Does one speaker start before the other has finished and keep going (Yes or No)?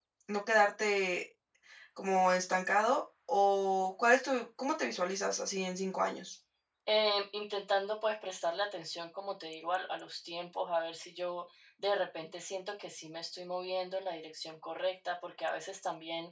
No